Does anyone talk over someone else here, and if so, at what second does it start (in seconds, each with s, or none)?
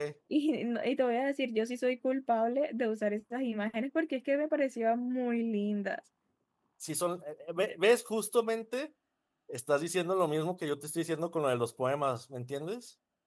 none